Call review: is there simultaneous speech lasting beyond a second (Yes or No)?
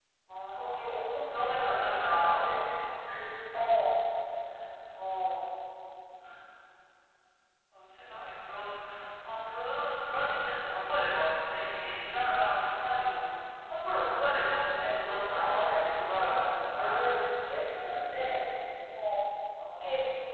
Yes